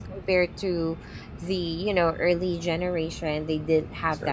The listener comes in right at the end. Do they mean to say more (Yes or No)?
No